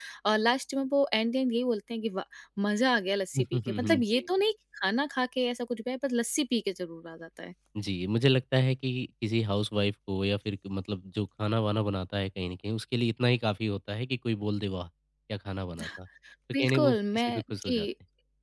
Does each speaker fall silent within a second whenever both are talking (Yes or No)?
No